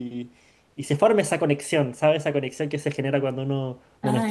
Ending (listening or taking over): listening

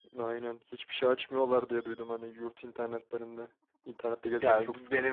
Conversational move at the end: taking over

